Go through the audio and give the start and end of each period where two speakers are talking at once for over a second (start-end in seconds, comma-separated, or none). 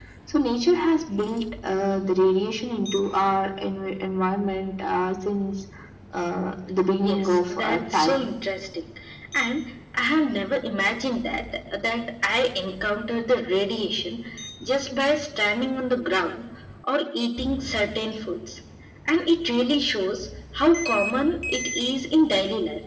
7.0-8.3